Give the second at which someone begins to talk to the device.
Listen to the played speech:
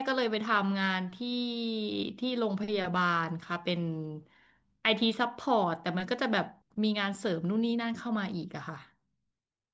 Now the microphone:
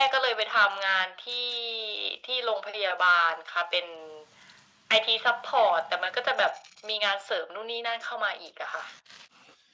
none

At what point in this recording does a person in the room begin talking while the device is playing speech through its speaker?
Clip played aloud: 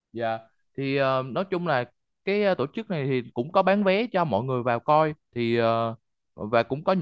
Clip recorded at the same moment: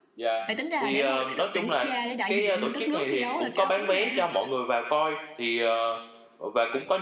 0.5 s

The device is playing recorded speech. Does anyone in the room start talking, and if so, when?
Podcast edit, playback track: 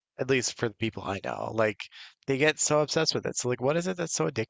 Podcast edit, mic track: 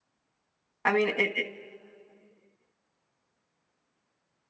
0.8 s

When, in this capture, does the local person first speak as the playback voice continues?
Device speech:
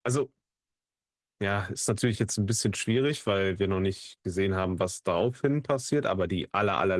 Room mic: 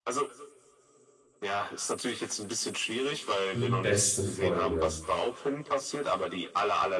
3.5 s

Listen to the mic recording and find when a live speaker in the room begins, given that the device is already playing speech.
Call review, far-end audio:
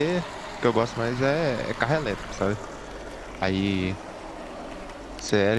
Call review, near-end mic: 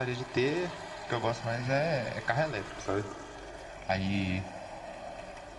none

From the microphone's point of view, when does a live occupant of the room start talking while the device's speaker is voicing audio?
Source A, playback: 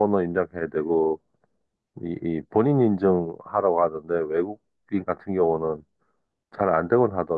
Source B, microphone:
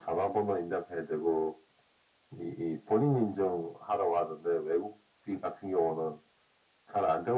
none

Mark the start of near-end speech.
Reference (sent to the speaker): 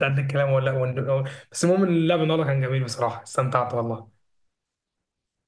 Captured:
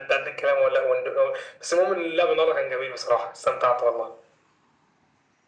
none

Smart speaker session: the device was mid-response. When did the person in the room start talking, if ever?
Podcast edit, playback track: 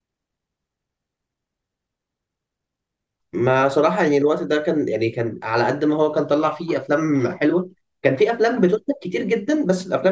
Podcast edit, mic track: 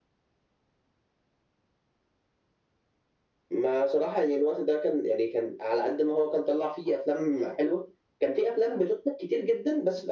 none

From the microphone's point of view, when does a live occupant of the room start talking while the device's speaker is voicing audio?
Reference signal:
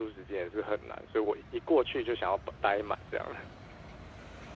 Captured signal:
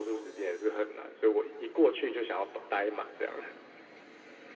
none

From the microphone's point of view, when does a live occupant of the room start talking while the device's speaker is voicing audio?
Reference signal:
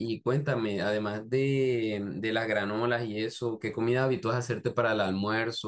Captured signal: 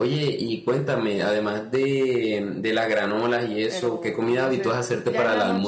3.7 s

